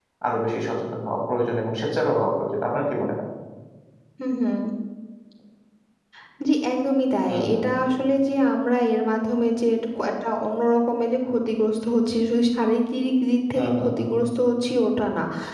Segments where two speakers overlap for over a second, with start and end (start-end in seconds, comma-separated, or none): none